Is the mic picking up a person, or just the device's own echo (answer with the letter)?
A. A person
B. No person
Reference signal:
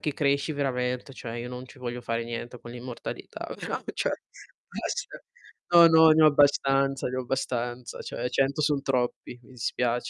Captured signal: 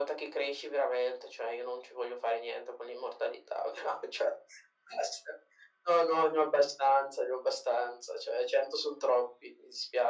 B